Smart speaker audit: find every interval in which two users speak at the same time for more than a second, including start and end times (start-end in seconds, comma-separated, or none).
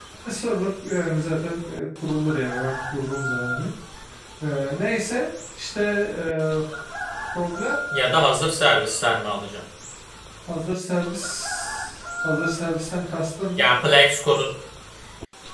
none